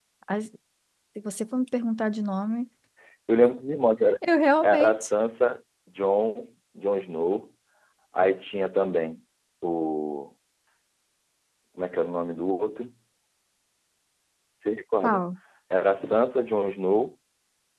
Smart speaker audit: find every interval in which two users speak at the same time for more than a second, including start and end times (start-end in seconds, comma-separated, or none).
none